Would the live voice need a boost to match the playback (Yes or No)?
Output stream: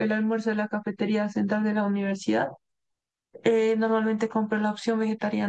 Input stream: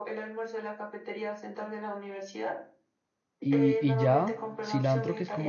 No